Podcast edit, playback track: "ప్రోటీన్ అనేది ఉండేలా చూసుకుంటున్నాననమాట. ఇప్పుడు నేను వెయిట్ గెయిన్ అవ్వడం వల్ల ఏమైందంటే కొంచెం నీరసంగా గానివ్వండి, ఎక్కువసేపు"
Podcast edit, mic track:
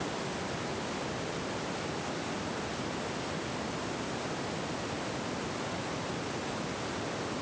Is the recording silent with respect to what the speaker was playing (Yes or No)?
Yes